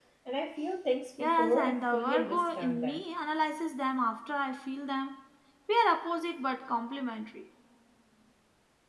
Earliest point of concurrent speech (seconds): 1.2 s

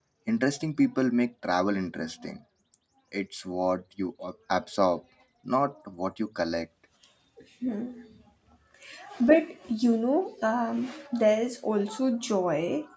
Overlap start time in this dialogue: none

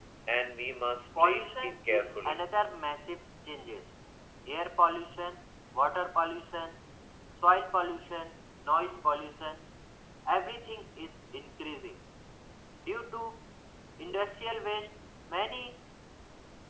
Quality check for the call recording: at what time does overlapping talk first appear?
1.2 s

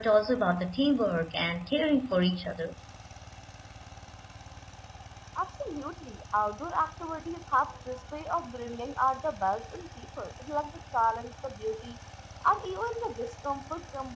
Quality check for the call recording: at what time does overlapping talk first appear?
none

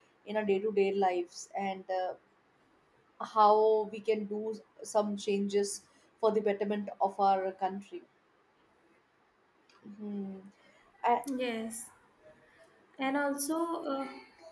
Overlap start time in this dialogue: none

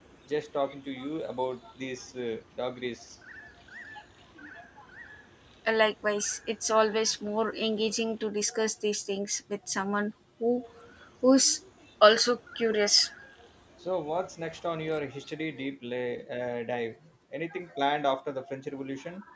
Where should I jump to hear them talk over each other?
none

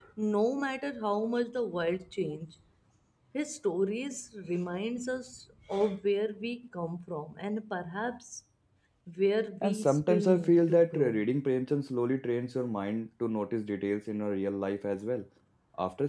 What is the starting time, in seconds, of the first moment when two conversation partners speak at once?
9.6 s

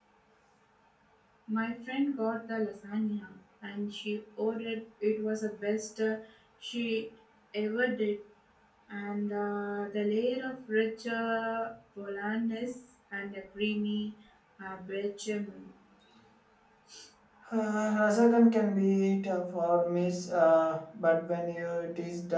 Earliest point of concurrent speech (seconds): none

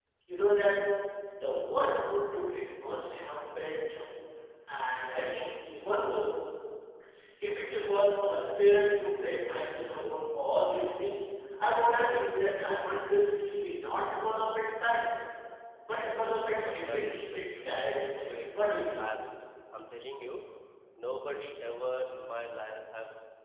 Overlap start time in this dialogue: 16.5 s

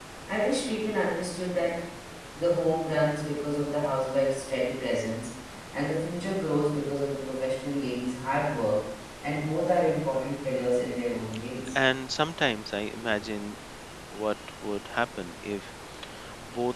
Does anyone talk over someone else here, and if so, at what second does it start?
none

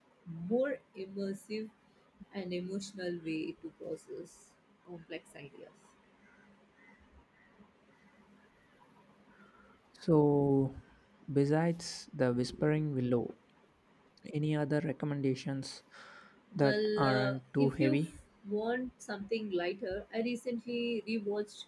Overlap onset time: 16.6 s

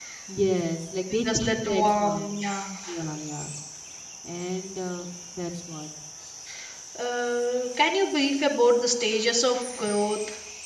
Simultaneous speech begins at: 1.1 s

